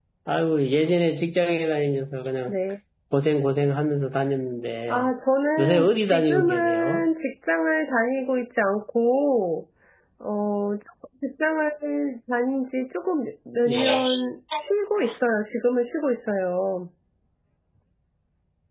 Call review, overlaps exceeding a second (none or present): present